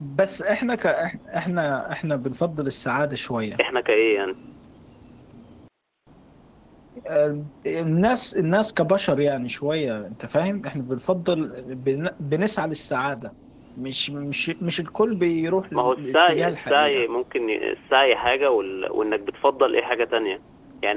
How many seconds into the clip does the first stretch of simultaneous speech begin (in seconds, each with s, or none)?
15.7 s